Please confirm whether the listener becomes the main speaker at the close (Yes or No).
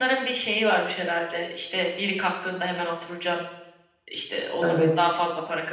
No